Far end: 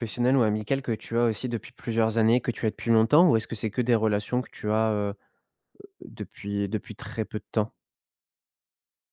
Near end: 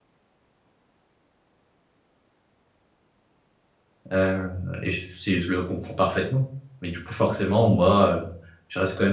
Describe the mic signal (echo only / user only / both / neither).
user only